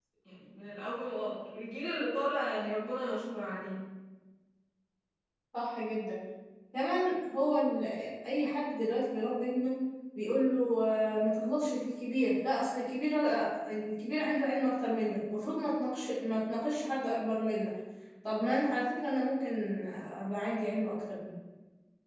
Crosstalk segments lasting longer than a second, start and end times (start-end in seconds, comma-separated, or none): none